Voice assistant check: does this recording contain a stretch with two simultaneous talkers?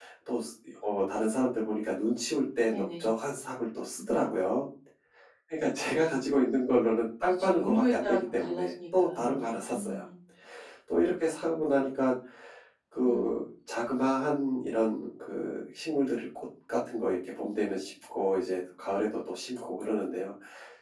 Yes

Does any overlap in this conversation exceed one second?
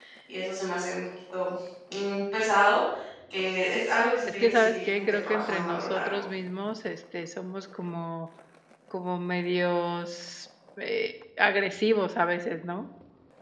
Yes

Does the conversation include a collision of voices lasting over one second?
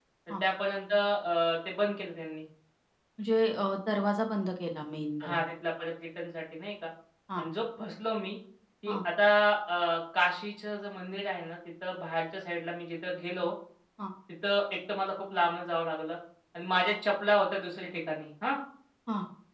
No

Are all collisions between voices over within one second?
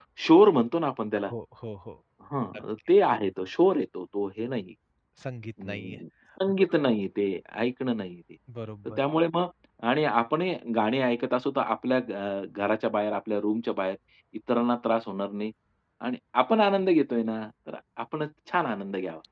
Yes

